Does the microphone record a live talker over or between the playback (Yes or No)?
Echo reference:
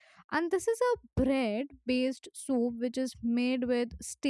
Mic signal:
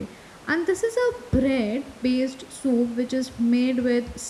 No